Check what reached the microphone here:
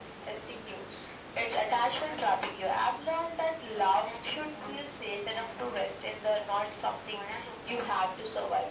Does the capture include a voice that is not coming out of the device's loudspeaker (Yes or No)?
No